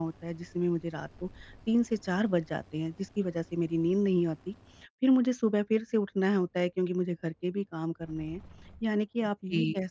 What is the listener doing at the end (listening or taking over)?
listening